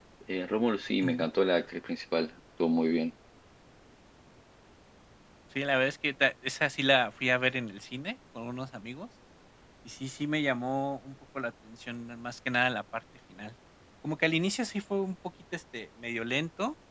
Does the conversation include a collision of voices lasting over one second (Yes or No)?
No